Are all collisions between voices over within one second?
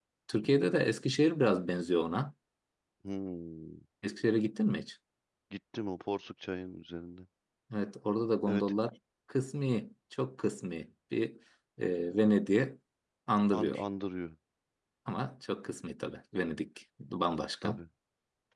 Yes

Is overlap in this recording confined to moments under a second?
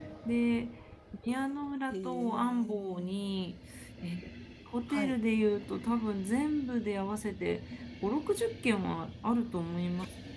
No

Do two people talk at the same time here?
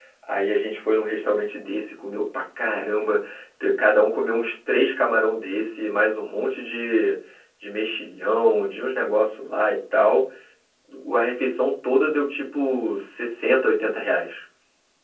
No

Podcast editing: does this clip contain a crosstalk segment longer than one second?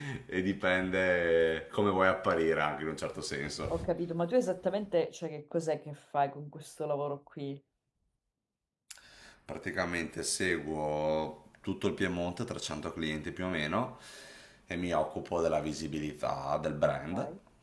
No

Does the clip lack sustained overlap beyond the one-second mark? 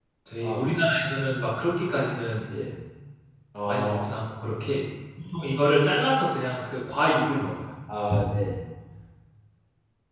Yes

